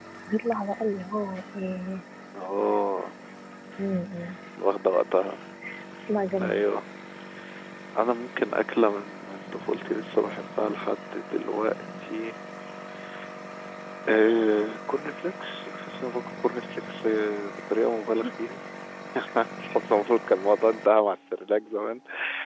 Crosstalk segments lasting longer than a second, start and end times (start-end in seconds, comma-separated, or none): none